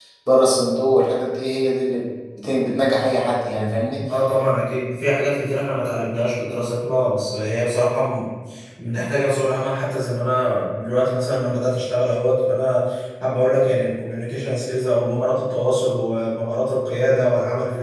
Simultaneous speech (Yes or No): No